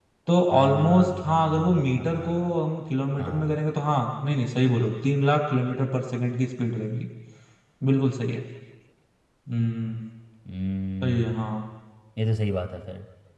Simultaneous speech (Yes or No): Yes